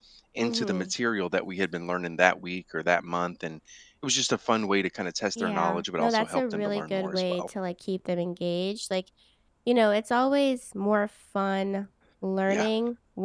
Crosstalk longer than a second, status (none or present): present